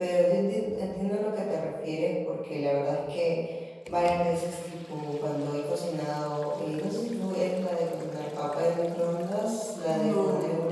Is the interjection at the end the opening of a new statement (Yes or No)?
No